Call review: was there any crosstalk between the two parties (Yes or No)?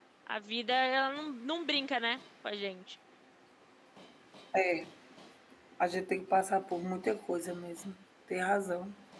No